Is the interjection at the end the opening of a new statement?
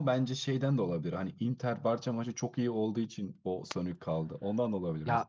Yes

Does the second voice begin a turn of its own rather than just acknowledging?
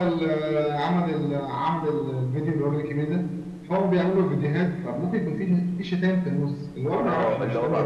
Yes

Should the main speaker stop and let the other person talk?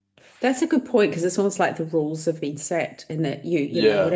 No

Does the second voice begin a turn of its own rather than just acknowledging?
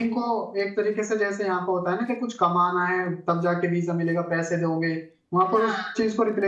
No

